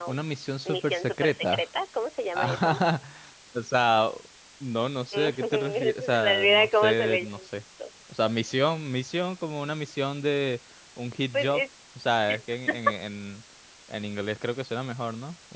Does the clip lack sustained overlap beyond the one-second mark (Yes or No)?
No